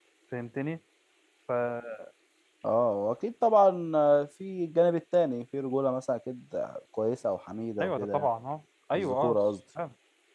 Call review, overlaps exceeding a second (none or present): none